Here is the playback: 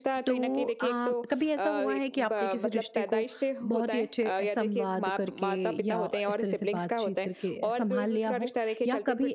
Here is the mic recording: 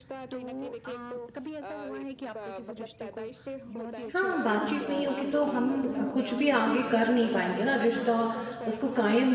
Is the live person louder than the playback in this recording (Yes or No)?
Yes